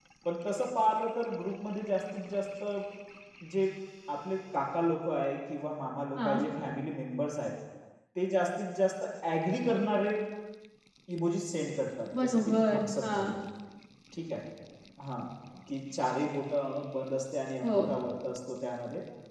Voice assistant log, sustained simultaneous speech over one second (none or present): present